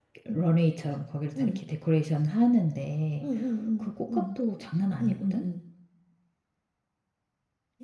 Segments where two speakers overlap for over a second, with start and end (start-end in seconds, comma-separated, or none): none